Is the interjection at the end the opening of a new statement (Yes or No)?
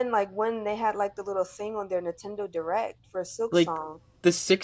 Yes